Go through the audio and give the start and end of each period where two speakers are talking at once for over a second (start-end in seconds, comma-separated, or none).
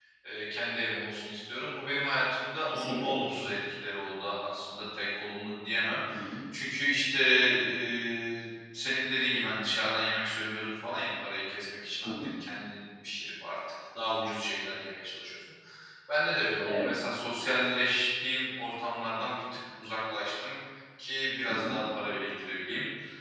none